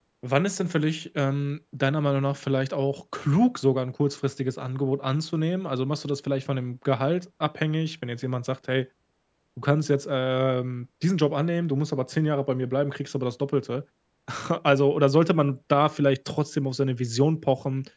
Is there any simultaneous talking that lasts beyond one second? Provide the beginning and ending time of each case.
none

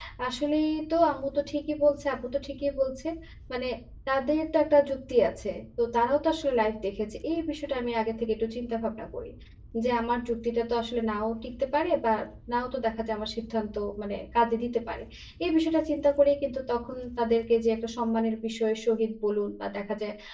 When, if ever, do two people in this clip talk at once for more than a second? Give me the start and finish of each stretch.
none

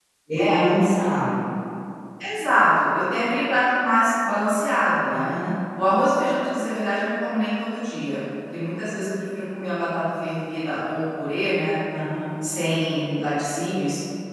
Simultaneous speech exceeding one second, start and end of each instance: none

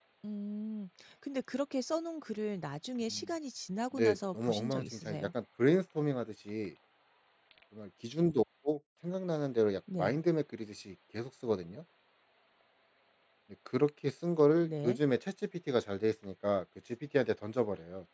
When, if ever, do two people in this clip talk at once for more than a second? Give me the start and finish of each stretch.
3.9-5.3

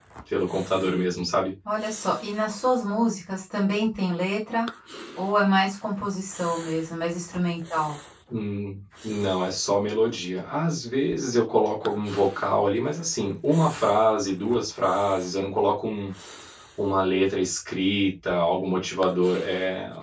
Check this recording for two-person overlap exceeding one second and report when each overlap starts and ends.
none

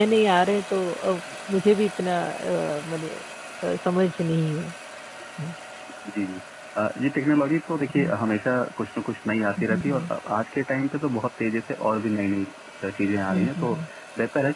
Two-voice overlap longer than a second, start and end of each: none

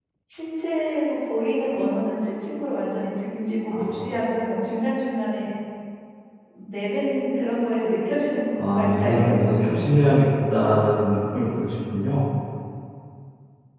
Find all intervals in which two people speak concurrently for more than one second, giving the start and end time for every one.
8.6-9.8

